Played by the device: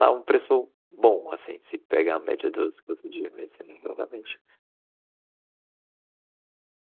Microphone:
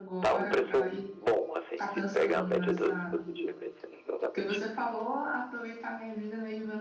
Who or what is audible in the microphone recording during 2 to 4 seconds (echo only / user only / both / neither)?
both